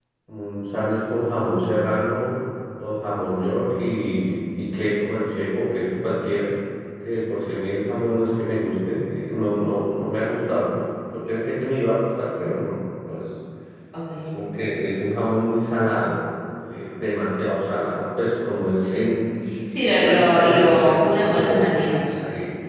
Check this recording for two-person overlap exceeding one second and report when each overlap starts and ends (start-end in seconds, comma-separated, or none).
19.9-21.7